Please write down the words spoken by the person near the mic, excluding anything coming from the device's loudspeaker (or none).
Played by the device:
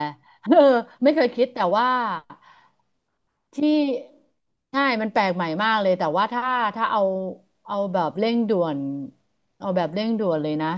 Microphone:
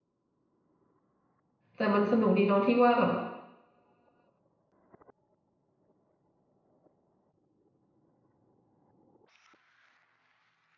แต่มันสนุกดีตรงที่ว่าแบบ